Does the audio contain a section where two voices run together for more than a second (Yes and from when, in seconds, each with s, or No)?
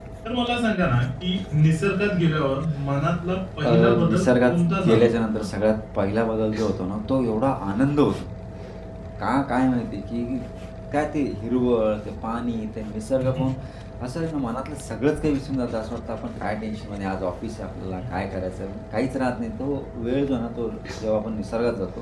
Yes, from 3.6 s